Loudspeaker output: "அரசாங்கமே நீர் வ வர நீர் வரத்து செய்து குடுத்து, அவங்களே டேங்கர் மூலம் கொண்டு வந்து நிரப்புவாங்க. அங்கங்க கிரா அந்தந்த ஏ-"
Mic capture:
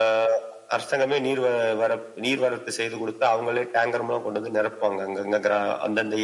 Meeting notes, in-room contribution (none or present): none